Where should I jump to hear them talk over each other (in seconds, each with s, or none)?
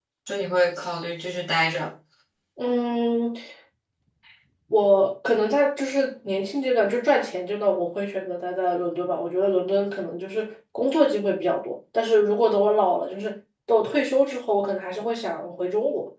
none